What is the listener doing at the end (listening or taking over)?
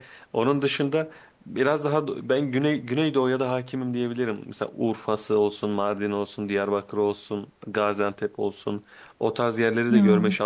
listening